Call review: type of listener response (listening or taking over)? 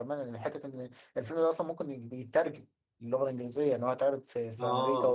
taking over